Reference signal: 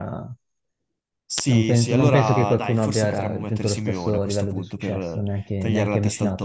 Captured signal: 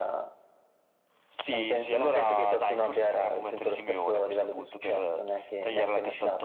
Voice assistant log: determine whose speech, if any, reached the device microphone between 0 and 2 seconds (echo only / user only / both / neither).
echo only